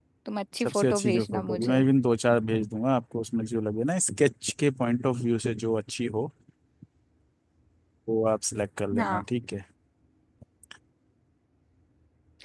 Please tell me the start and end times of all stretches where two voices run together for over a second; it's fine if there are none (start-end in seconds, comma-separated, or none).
0.6-1.8